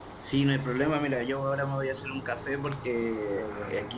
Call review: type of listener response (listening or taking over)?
listening